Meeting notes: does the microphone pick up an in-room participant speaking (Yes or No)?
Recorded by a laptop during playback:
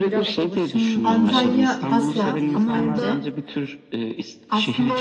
Yes